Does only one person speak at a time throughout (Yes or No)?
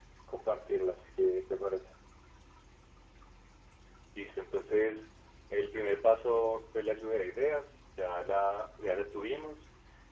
Yes